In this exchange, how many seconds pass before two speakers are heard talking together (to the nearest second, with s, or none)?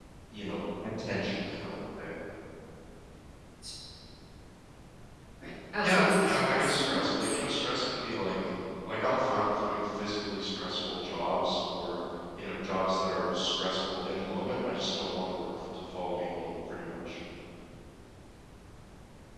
6 s